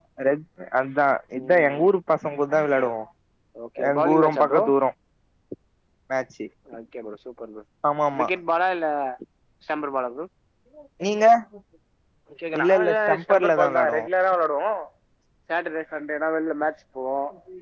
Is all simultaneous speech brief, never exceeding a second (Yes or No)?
No